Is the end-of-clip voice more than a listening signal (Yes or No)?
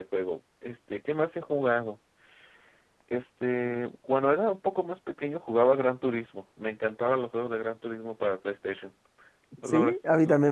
Yes